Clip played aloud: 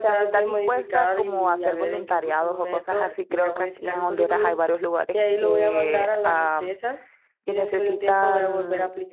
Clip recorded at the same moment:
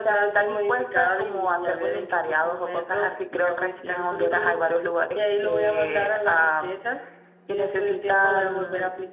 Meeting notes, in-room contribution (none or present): none